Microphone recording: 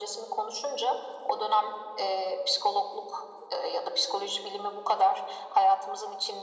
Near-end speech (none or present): none